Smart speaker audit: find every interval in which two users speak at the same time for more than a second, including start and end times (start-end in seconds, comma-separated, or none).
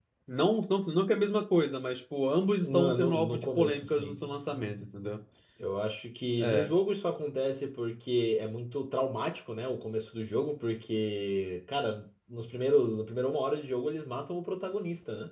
2.6-4.1